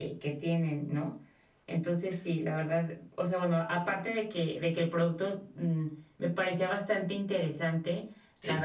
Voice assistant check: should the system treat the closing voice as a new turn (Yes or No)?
No